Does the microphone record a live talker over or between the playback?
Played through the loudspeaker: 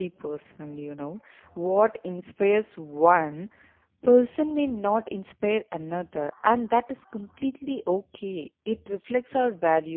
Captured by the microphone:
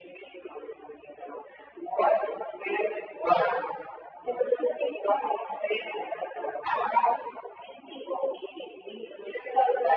No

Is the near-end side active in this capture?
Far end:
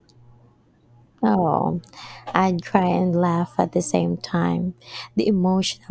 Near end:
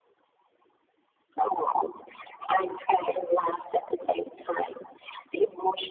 No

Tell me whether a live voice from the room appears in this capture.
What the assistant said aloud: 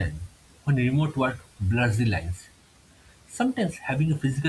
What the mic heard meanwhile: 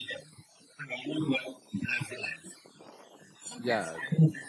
Yes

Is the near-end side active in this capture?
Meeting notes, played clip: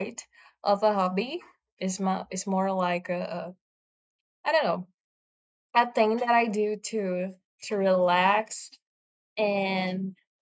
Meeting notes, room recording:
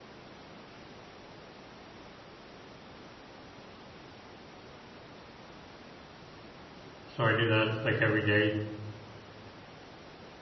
Yes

